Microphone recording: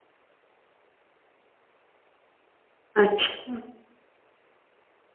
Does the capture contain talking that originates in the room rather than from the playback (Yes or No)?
Yes